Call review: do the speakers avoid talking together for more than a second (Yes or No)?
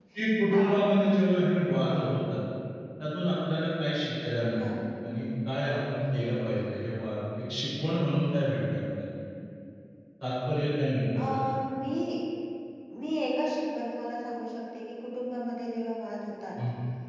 Yes